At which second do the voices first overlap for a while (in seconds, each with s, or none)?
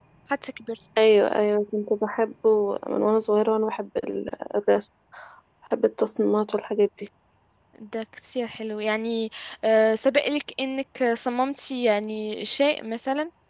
none